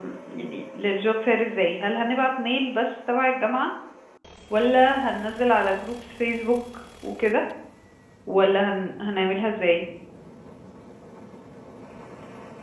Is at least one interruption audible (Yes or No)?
No